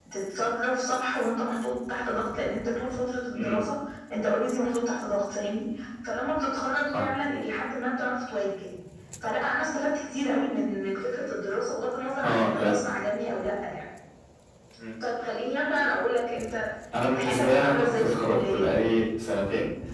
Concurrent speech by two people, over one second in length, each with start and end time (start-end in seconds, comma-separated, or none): 17.1-18.8